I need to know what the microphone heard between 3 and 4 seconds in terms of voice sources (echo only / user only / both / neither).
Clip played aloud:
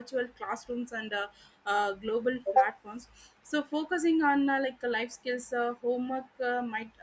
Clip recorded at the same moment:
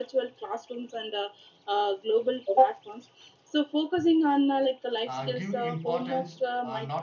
echo only